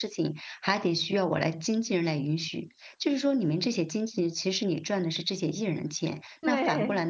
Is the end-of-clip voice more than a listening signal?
No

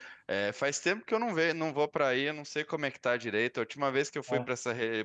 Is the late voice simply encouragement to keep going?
Yes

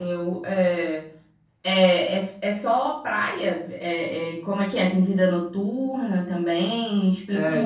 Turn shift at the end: Yes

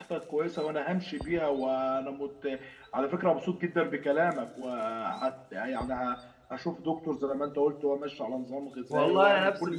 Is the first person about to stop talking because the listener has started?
Yes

